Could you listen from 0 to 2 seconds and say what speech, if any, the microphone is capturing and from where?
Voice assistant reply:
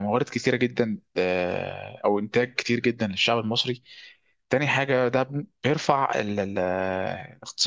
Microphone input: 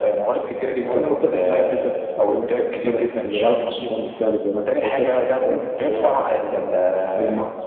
both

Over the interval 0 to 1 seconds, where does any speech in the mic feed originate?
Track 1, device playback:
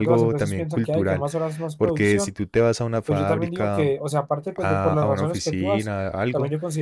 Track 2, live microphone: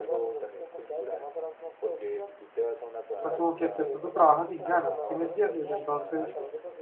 echo only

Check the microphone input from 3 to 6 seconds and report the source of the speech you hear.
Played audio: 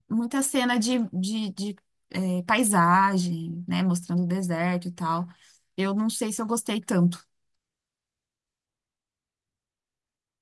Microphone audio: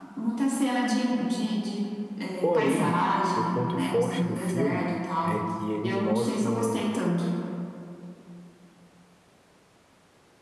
both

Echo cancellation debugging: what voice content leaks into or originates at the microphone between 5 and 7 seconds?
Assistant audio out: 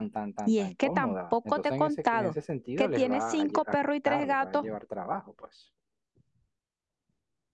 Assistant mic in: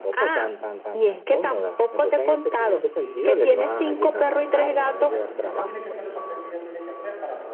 both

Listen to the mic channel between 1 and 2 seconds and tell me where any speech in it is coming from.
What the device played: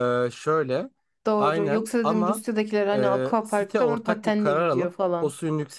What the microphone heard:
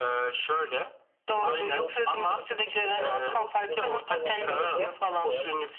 both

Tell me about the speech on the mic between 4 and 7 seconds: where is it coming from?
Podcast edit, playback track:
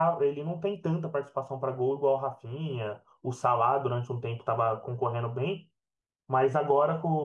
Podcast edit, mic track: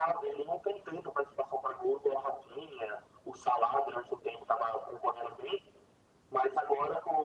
echo only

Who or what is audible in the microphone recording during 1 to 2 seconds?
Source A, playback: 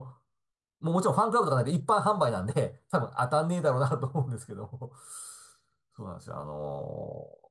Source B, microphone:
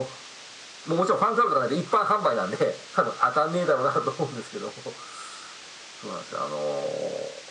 echo only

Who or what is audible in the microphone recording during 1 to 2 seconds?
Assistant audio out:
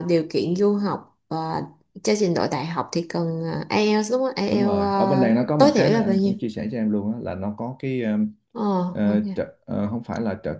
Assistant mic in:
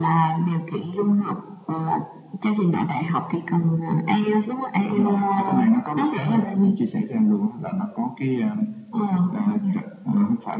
echo only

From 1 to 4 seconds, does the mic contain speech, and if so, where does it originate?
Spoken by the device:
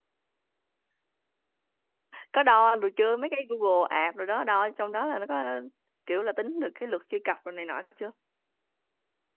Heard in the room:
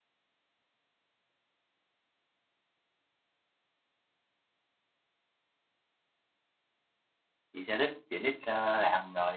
neither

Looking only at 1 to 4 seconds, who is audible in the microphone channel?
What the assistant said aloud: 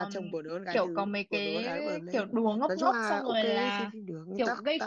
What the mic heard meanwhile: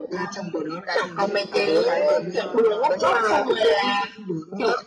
both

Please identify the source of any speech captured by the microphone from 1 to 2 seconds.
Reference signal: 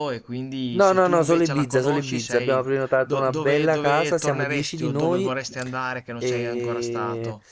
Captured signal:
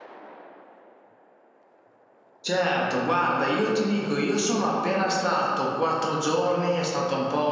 neither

